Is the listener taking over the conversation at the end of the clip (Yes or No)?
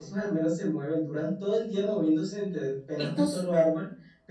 No